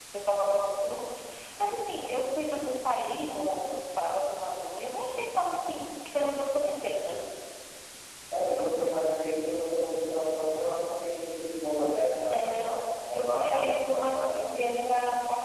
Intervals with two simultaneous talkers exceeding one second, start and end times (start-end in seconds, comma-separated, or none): 13.1-14.4